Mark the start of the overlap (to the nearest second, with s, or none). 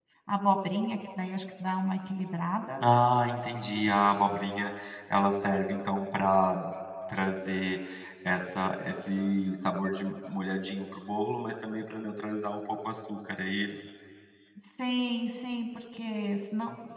none